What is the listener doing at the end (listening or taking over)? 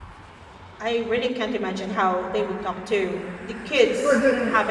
taking over